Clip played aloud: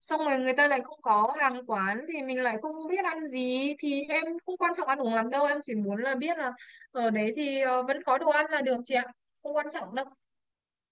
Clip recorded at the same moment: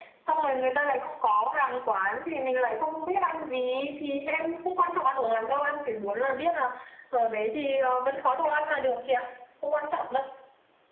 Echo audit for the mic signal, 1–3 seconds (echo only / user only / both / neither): echo only